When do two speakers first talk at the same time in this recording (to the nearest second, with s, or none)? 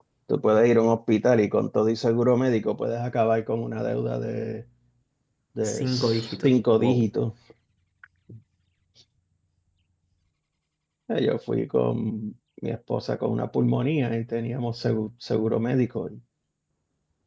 6 s